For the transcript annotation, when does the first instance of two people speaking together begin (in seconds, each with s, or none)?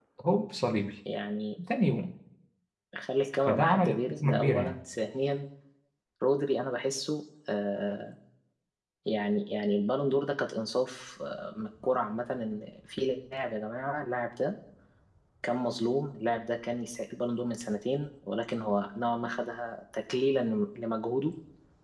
3.5 s